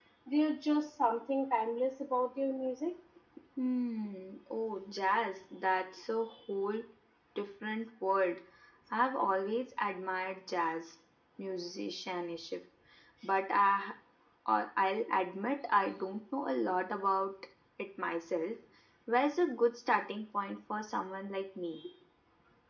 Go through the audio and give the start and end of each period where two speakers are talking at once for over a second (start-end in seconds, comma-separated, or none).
none